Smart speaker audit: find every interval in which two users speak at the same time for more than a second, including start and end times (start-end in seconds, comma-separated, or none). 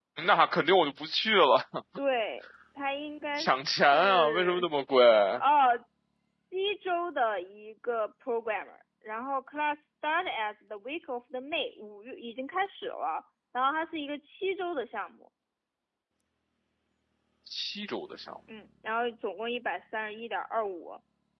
3.4-4.7